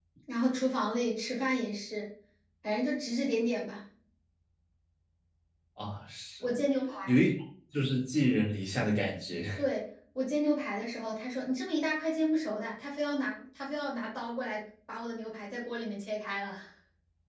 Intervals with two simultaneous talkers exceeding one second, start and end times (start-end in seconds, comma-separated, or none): none